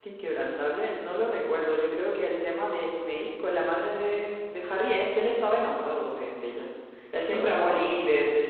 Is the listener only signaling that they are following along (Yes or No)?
Yes